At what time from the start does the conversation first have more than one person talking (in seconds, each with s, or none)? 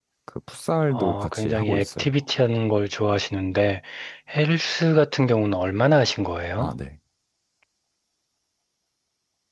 0.9 s